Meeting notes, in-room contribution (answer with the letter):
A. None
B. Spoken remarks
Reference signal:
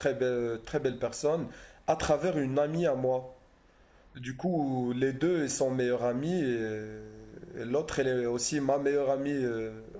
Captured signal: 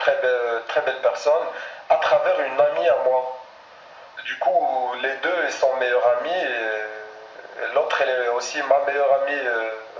A